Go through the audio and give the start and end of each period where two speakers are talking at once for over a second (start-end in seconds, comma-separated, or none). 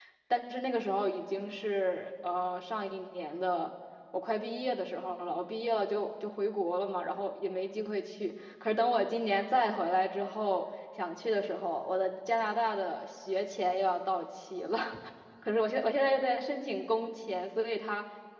none